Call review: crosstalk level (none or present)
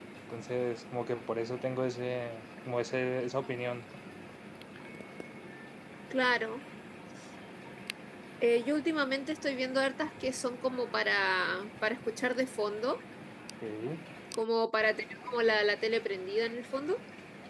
none